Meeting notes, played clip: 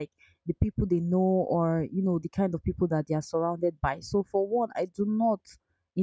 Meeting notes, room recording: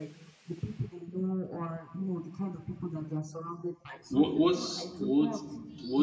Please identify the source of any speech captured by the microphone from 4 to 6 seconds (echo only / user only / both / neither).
both